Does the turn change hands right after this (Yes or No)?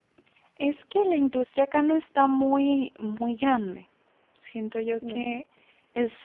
No